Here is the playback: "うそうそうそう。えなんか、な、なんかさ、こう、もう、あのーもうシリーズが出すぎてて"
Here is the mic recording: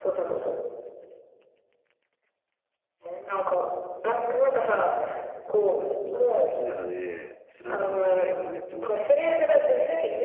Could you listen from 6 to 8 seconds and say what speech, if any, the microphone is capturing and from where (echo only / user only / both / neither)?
both